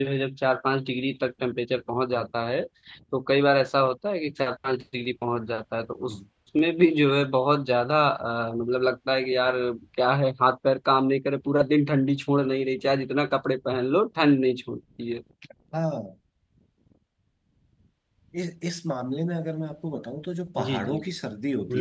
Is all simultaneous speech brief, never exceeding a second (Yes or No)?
Yes